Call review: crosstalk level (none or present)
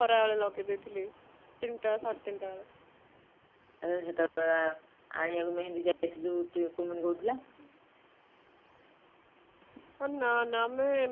none